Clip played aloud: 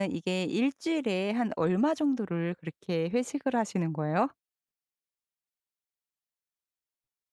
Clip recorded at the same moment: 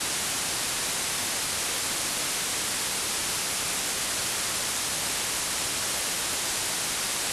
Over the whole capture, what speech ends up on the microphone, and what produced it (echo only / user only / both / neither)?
neither